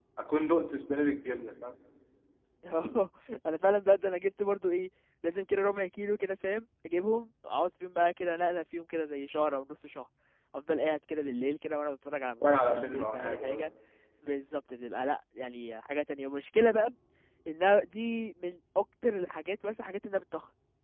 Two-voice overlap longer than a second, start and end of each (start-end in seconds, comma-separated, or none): 12.5-13.7